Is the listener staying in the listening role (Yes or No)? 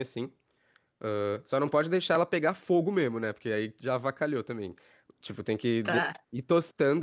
Yes